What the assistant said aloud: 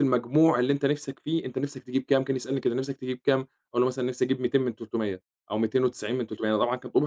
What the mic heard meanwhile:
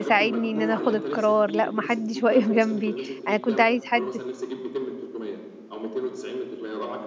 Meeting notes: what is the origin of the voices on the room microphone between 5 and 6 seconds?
echo only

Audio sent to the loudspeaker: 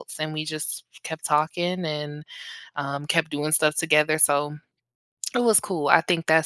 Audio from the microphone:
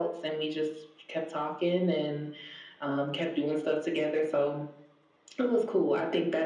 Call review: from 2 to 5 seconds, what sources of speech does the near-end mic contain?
echo only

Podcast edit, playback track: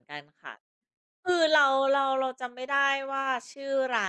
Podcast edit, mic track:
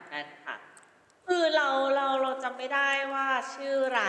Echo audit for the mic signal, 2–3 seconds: echo only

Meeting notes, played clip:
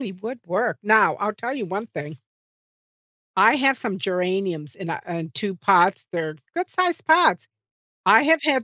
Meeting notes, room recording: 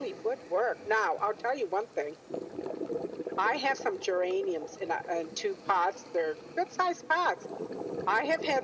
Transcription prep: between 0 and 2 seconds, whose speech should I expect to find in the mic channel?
echo only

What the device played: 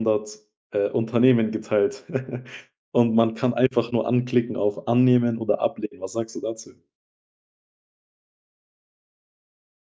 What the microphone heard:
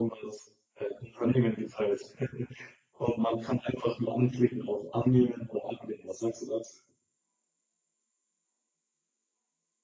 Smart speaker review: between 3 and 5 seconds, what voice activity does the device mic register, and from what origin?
echo only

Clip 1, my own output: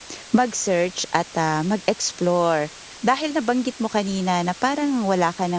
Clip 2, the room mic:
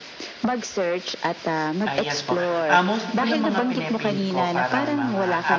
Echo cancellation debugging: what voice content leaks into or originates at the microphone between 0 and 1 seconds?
echo only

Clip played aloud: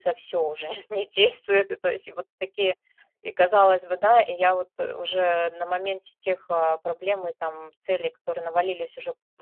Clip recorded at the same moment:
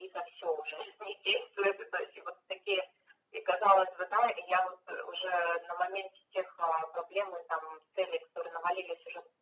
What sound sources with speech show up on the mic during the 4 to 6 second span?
echo only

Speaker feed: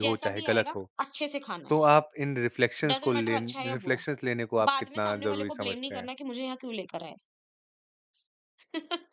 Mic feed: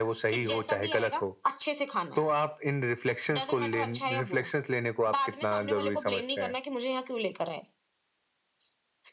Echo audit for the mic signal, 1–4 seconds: echo only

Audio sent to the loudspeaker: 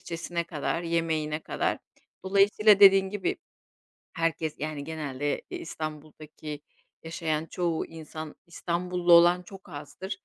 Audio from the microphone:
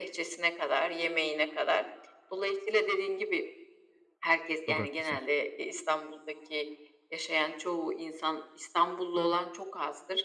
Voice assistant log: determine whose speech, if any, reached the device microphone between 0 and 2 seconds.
echo only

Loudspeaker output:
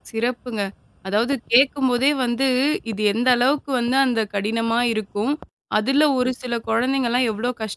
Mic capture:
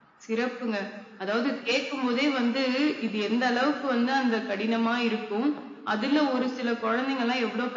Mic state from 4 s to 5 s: echo only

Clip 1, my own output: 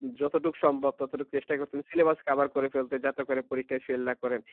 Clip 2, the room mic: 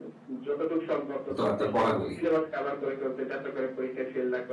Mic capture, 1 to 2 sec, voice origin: both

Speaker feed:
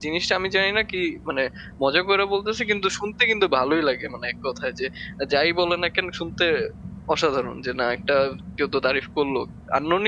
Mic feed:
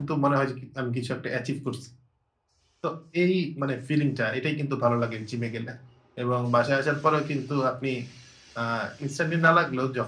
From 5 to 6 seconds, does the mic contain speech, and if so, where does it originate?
user only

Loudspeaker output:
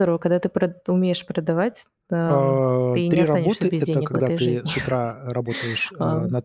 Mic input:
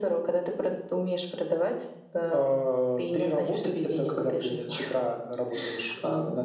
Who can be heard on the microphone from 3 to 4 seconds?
echo only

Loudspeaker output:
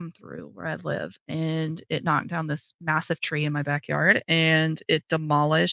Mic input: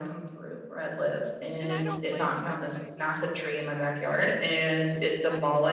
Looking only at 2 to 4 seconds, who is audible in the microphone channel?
both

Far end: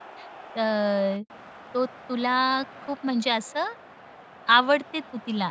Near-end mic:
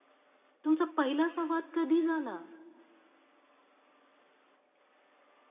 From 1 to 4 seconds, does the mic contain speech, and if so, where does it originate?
user only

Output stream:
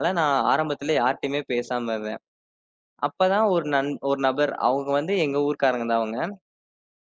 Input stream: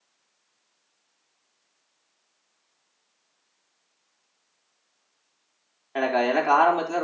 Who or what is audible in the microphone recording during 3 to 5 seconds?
neither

